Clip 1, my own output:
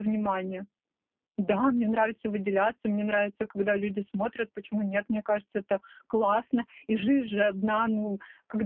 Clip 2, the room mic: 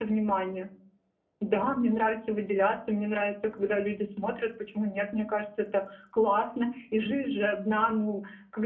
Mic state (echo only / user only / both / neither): echo only